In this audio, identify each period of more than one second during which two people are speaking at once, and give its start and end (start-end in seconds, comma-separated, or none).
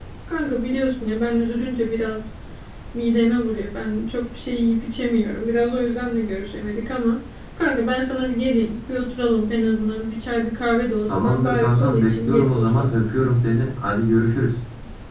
11.1-12.9